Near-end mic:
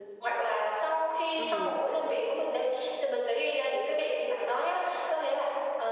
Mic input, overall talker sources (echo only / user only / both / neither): both